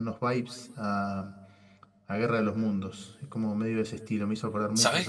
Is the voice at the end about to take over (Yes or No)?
Yes